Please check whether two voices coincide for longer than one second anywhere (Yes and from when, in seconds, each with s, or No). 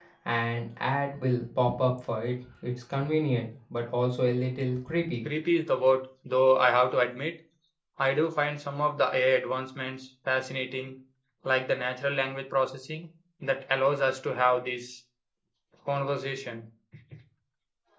No